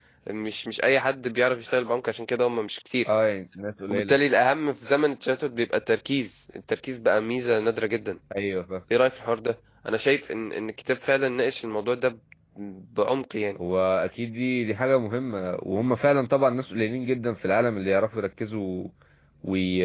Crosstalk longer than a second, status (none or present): none